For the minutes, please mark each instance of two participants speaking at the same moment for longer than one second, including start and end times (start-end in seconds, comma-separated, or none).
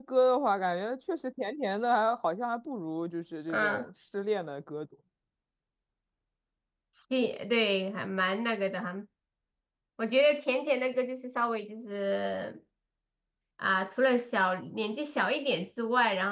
none